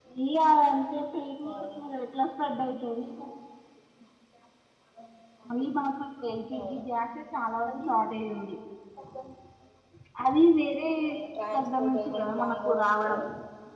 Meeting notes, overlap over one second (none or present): present